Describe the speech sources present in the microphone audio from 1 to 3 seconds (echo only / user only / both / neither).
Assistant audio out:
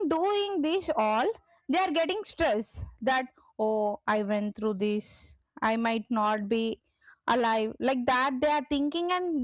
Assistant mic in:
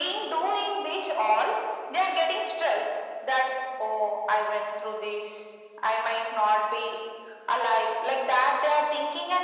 echo only